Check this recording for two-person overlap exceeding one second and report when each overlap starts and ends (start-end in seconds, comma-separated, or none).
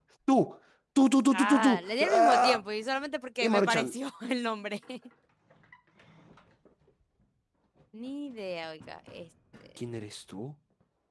1.3-2.6